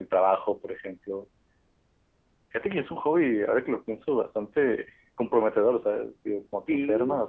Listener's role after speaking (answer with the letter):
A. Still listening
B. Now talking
A